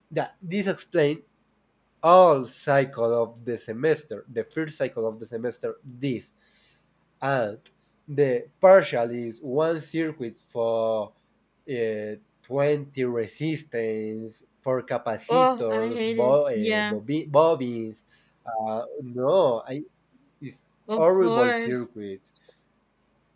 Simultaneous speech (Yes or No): Yes